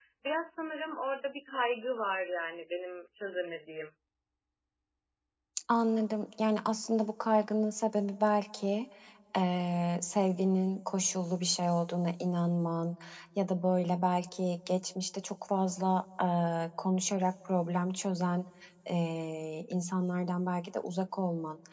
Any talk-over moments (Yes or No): No